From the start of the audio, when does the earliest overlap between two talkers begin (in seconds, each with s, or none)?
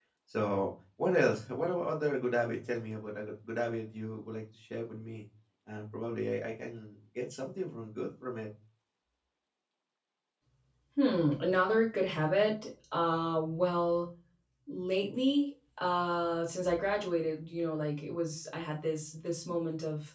none